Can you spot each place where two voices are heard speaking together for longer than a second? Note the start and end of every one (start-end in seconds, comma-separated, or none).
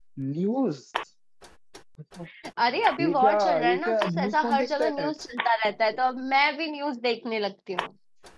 3.0-4.9